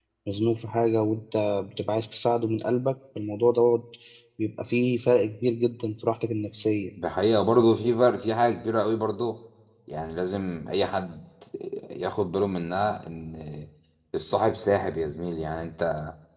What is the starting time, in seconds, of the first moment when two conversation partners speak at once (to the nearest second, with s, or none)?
none